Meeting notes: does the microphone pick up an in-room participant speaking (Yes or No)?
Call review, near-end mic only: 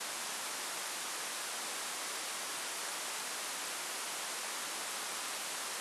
No